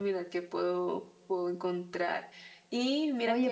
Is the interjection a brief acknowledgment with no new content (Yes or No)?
No